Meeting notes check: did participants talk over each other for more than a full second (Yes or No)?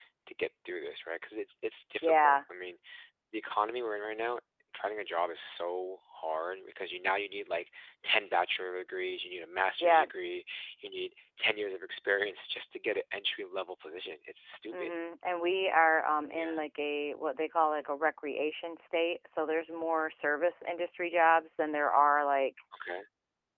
No